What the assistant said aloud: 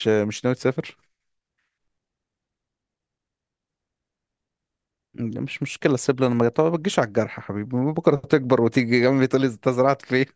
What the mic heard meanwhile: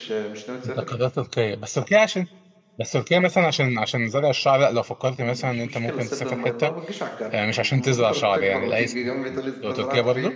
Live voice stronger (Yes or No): Yes